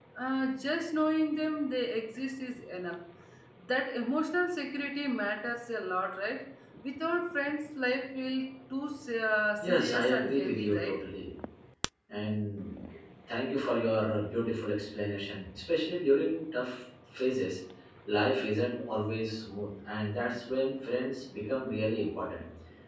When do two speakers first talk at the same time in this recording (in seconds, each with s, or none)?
9.6 s